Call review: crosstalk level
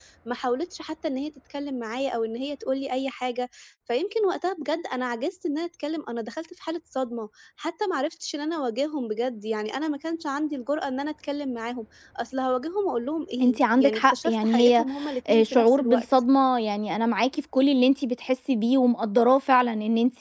present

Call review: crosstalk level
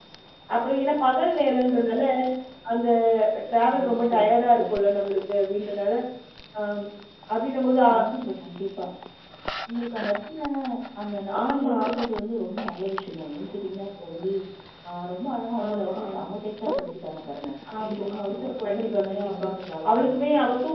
present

